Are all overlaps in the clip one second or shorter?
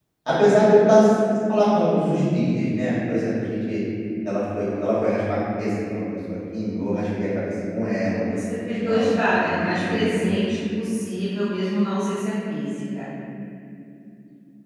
No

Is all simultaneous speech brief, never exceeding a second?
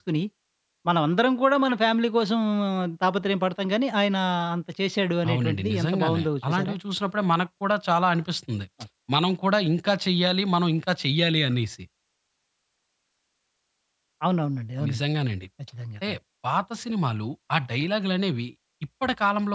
No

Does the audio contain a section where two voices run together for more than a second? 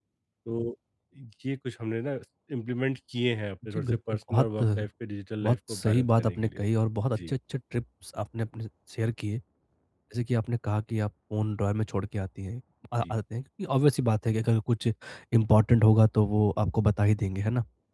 Yes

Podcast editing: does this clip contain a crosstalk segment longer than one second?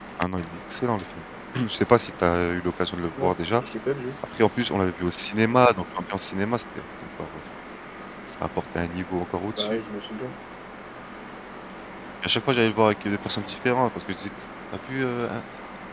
No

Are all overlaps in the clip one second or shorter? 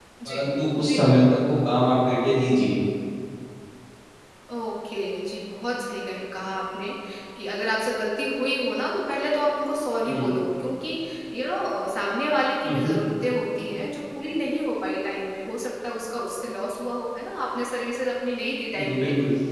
Yes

